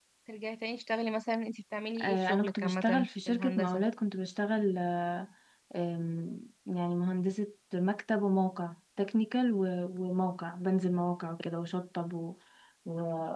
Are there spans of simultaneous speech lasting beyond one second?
Yes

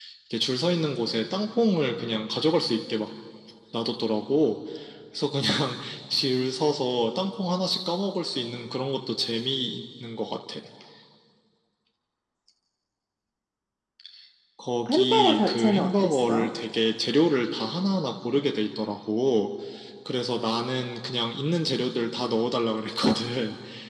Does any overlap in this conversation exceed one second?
Yes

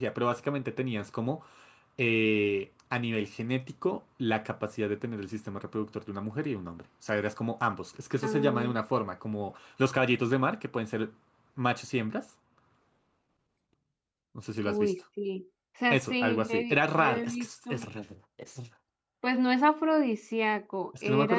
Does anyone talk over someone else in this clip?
Yes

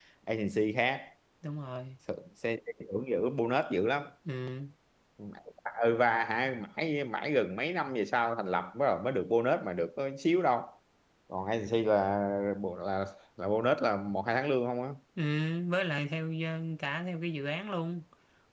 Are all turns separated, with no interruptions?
Yes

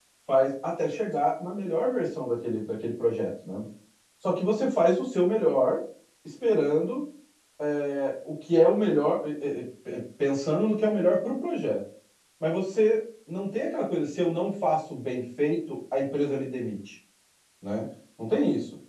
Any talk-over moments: No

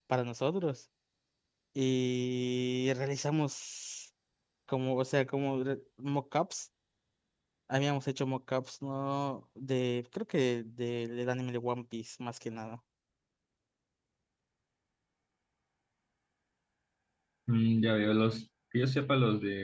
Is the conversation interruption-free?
Yes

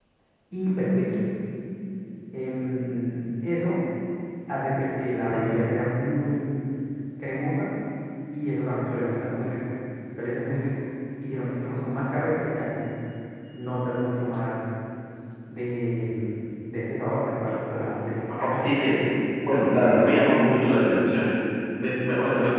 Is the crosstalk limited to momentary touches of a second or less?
No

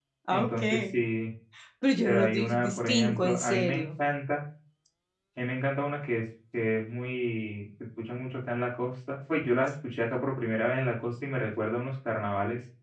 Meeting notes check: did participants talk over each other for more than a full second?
Yes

